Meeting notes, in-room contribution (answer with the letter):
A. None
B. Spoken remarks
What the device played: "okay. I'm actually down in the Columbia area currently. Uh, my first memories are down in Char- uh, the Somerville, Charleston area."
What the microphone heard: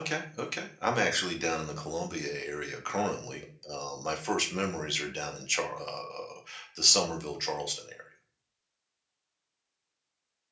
A